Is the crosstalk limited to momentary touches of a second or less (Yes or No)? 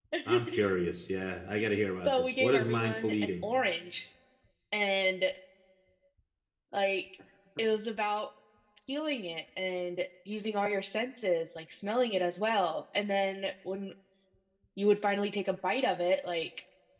No